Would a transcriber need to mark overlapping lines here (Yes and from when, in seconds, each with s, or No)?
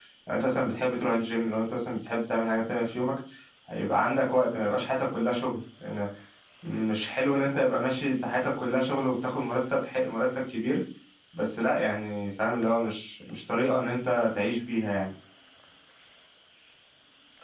No